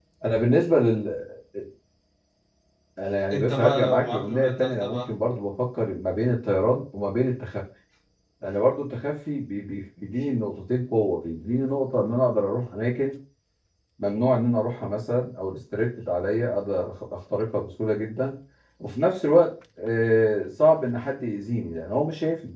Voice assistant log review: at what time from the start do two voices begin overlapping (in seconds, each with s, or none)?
3.3 s